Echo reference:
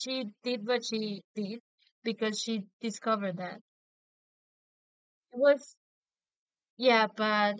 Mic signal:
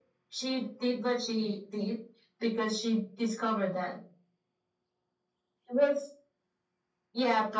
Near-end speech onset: none

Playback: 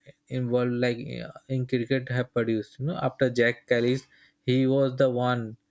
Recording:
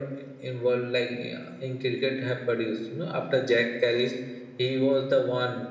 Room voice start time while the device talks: none

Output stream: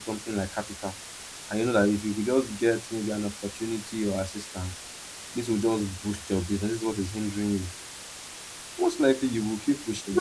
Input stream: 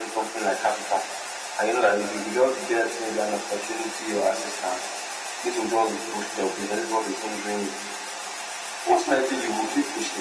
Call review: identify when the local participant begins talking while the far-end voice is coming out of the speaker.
none

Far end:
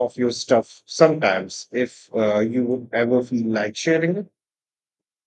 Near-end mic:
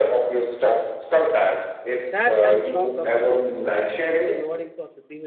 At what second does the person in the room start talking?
2.1 s

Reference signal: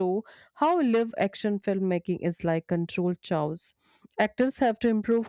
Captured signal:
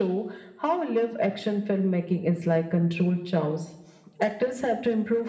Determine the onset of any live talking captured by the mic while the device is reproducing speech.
none

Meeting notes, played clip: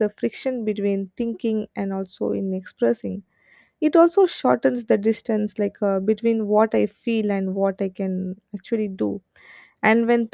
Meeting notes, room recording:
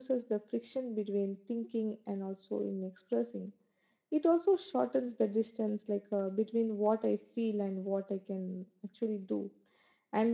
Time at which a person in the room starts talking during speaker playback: none

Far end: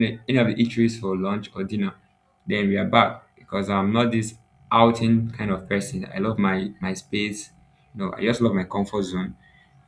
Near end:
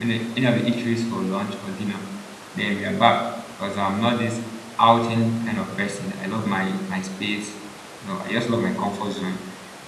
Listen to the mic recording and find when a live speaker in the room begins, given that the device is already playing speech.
none

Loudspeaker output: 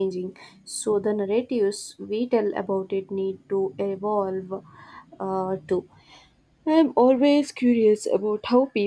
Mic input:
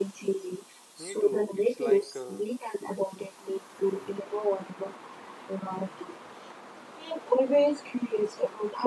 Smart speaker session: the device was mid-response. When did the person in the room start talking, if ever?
0.9 s

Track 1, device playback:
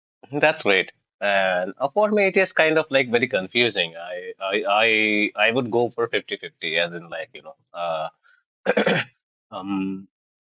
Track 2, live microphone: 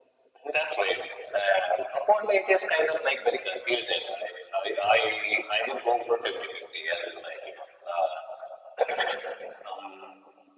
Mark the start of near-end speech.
none

